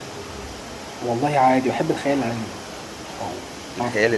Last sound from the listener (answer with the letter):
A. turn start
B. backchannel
A